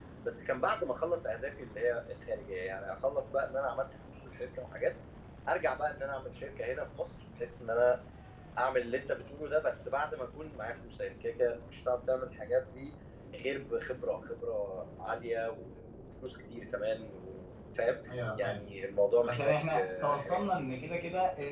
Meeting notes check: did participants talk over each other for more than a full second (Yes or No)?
Yes